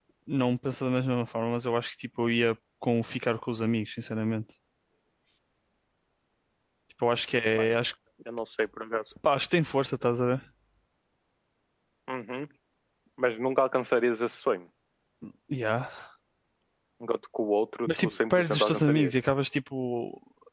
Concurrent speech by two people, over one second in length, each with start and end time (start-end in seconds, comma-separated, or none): 17.9-19.1